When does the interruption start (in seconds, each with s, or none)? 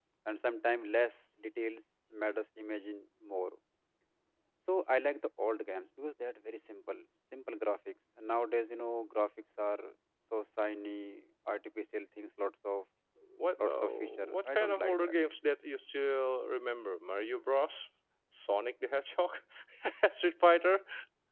13.6 s